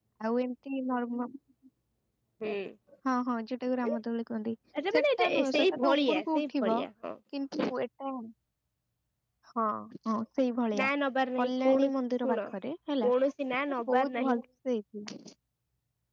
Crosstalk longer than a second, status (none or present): present